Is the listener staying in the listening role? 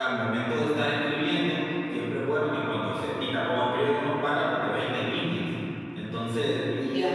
Yes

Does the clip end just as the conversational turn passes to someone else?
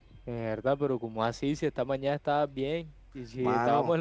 No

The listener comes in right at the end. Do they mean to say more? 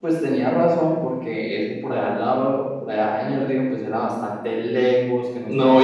Yes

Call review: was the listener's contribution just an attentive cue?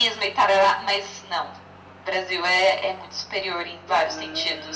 No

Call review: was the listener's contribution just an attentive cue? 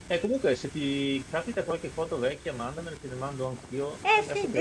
No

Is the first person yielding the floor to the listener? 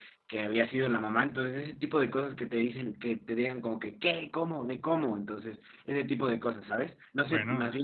No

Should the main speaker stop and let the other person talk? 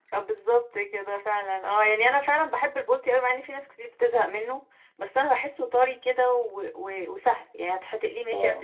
No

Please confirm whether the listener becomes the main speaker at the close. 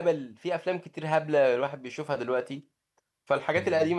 No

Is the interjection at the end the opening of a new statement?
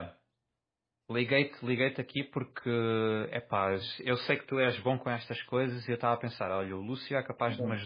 No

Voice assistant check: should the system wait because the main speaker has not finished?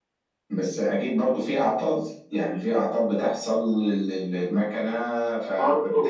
No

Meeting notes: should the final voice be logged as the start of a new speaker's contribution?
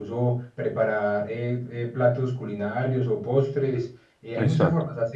No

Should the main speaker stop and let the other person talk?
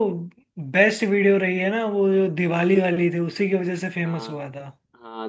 Yes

